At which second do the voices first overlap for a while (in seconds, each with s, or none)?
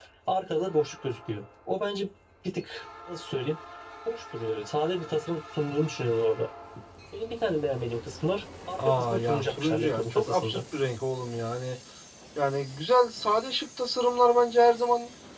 8.8 s